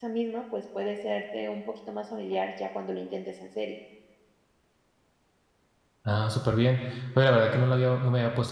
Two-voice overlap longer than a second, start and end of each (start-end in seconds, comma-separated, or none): none